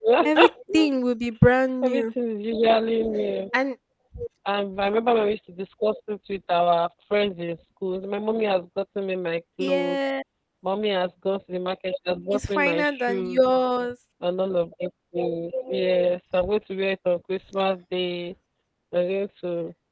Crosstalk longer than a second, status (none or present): present